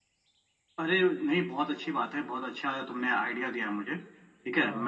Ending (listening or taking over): listening